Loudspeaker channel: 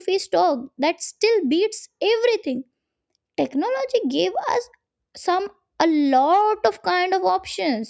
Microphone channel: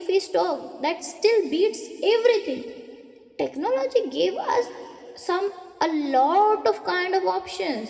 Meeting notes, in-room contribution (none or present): none